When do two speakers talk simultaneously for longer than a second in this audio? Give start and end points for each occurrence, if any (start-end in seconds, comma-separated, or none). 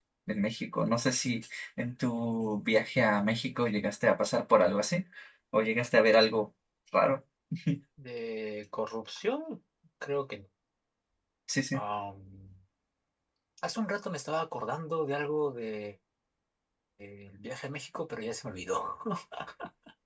none